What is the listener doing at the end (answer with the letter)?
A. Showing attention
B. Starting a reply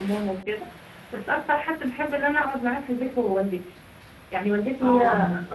A